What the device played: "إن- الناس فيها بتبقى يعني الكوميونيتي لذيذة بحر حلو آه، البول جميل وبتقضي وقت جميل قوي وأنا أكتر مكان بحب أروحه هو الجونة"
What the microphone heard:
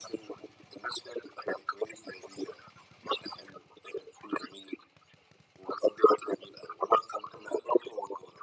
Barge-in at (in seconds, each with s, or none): none